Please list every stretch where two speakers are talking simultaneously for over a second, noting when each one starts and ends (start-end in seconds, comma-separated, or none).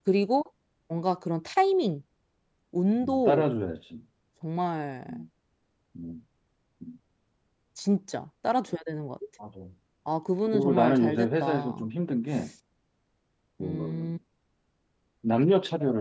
10.5-11.9